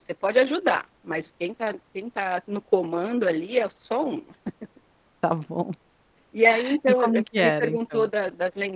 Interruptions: present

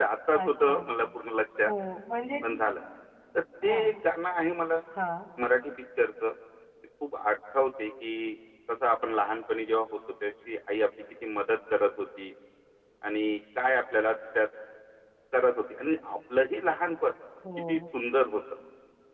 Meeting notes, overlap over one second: none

